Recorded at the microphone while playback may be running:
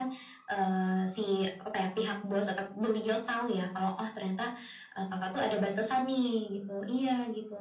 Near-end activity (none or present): none